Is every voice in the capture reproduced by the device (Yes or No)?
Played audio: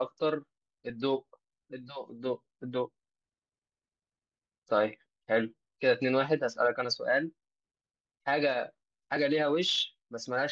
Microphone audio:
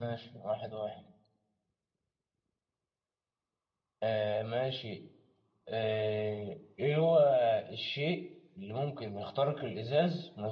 No